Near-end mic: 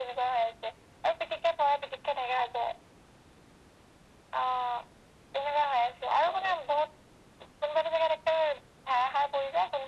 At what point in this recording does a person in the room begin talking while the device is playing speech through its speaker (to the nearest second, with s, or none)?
none